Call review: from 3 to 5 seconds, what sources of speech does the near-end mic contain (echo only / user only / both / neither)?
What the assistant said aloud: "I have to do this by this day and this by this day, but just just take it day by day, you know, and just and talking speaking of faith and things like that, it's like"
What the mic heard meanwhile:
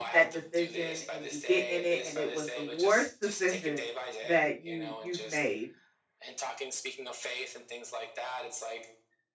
both